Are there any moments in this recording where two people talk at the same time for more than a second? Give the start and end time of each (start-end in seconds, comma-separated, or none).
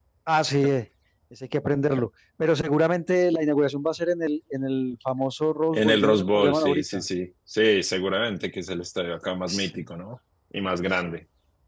5.7-7.0